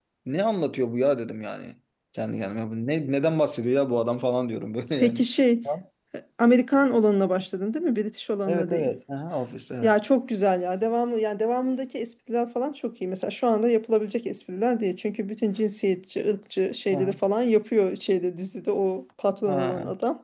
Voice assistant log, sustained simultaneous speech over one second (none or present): none